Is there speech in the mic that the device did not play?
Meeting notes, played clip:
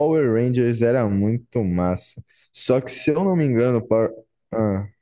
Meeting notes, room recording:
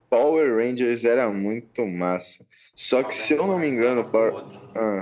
Yes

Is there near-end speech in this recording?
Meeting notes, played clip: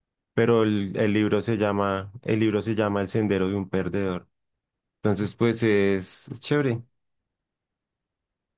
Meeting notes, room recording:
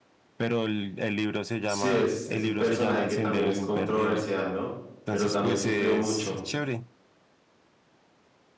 Yes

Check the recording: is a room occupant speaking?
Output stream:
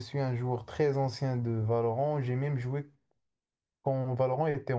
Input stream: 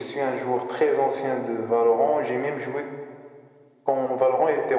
No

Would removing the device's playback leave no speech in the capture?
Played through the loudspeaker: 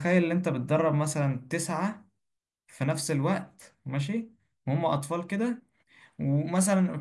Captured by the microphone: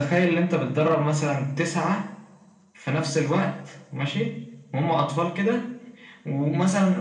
Yes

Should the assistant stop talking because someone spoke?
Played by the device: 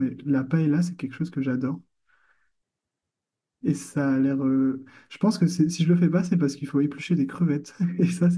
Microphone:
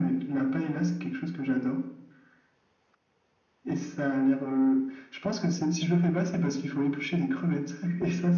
No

